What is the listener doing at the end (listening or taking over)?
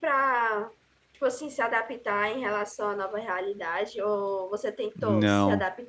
taking over